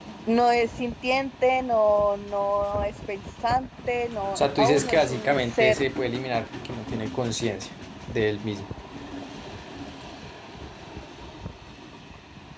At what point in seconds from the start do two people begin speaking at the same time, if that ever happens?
4.4 s

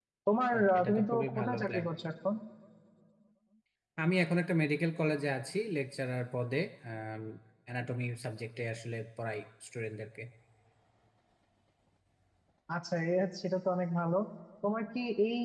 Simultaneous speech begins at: 0.5 s

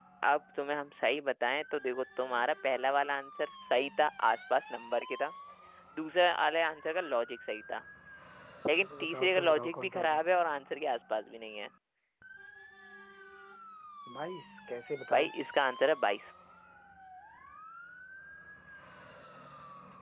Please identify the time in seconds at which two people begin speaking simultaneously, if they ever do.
9.0 s

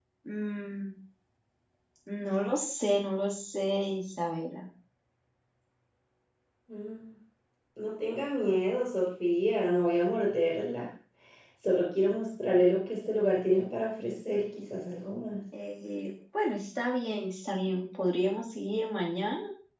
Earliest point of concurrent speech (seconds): none

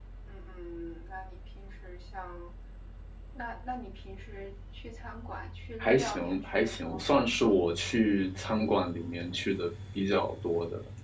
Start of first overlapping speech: 5.8 s

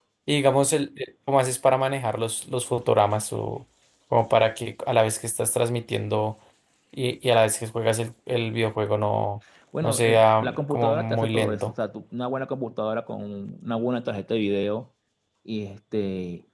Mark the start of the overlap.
9.7 s

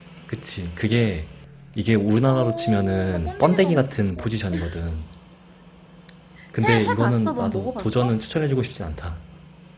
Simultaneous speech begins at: 2.3 s

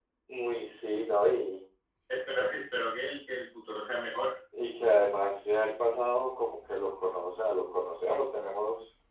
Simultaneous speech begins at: none

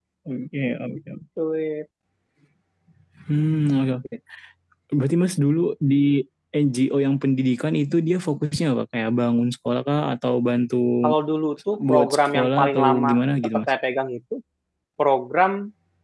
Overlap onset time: 11.9 s

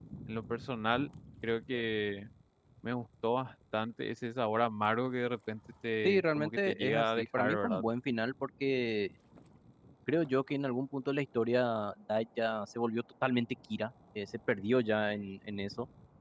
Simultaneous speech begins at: 6.0 s

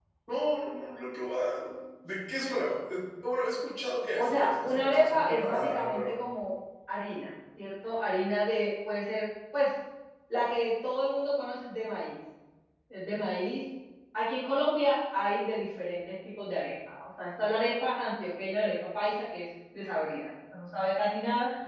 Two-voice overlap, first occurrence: 4.1 s

